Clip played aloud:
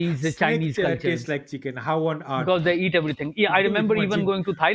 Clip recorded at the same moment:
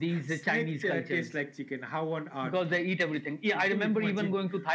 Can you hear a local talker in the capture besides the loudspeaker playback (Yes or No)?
No